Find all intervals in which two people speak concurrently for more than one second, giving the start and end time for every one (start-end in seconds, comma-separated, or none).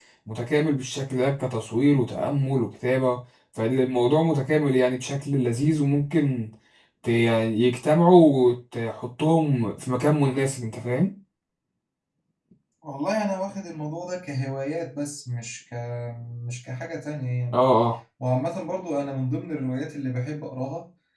none